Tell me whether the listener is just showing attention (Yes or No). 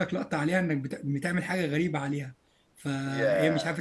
Yes